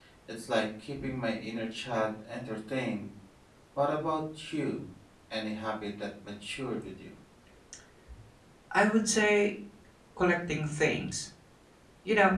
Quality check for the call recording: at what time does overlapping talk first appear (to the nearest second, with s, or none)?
none